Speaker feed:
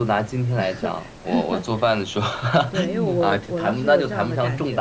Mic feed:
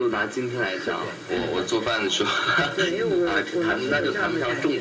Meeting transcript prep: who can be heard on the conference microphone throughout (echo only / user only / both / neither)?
both